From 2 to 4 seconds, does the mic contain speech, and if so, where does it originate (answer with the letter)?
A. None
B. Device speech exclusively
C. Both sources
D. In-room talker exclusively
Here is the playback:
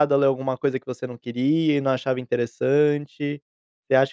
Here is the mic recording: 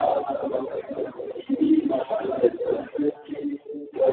B